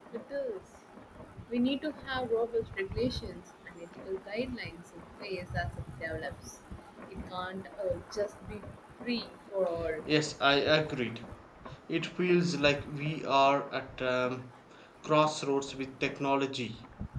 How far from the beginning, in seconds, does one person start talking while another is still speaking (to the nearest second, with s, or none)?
none